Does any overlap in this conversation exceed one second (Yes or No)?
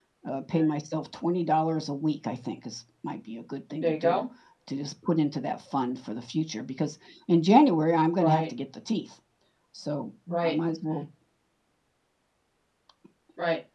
No